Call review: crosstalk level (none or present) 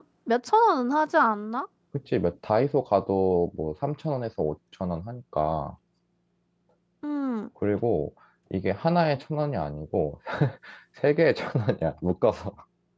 none